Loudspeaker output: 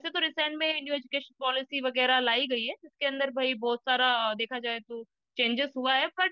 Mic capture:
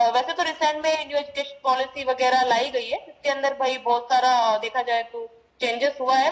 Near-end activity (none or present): none